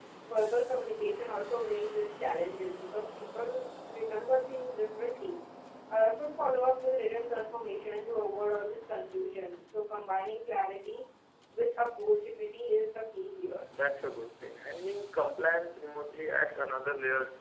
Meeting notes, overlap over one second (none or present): none